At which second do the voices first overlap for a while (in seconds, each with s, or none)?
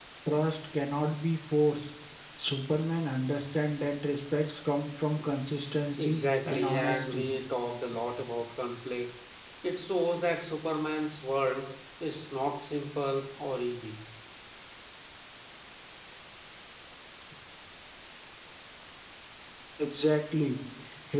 6.0 s